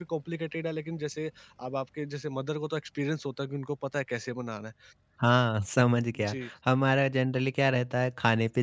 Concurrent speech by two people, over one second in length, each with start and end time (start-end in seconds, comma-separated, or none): none